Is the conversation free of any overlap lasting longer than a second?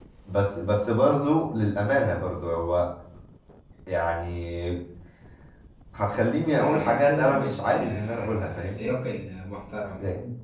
No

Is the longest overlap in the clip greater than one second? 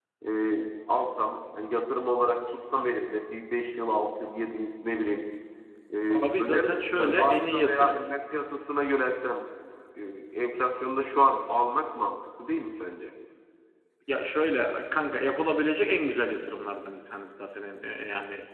Yes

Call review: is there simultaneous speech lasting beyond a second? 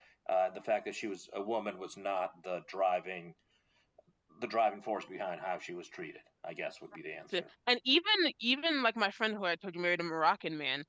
No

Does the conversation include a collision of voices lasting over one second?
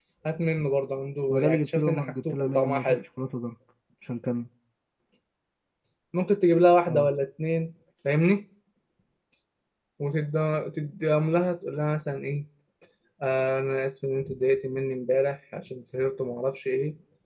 Yes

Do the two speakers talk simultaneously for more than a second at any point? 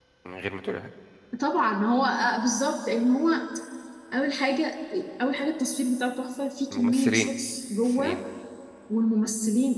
No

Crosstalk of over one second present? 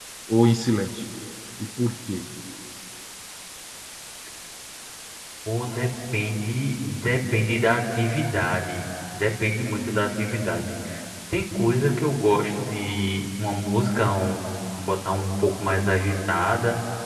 No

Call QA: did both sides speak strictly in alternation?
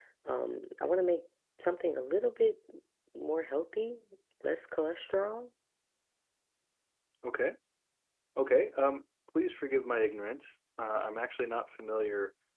Yes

